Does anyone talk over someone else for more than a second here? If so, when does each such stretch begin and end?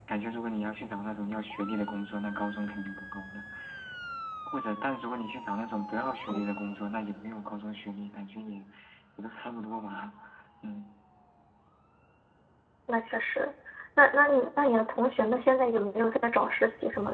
none

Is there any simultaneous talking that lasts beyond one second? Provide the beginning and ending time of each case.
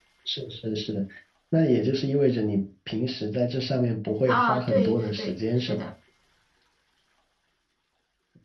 4.3-5.9

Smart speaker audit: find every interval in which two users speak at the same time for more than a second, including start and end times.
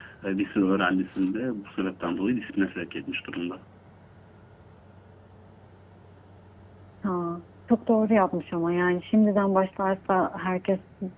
none

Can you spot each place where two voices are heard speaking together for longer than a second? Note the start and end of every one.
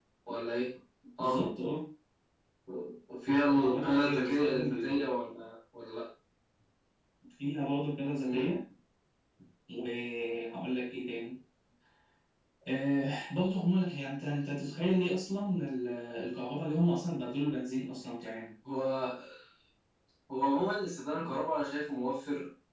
3.5-5.0

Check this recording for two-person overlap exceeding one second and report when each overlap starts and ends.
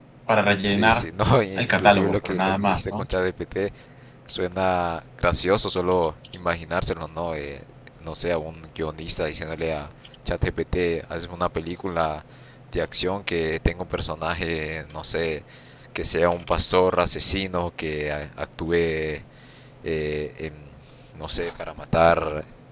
1.6-3.0

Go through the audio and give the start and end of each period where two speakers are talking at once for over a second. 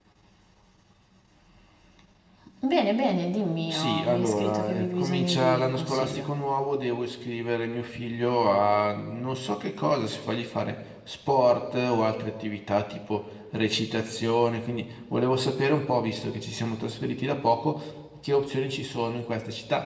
3.7-6.3

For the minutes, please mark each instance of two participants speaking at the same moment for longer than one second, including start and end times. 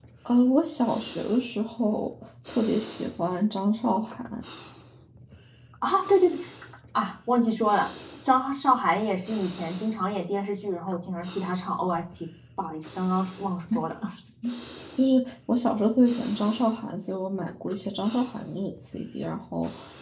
none

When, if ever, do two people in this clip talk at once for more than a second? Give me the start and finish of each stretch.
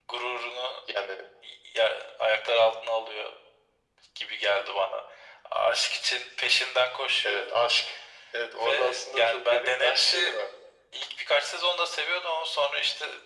8.6-10.3

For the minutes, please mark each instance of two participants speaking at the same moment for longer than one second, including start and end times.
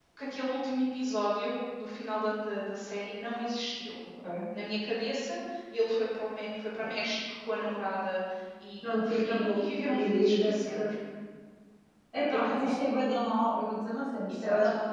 8.9-10.8

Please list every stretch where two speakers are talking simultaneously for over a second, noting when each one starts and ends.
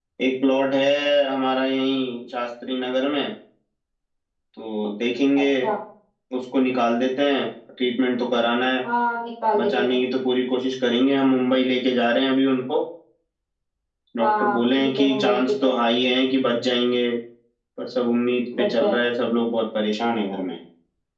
14.2-15.7

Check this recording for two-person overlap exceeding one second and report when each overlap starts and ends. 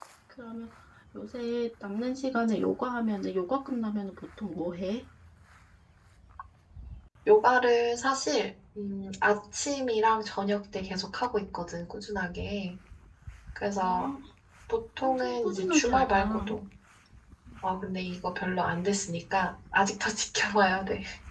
15.0-16.4

